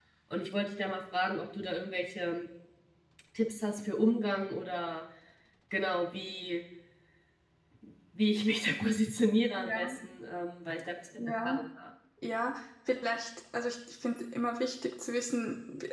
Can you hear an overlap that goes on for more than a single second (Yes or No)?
No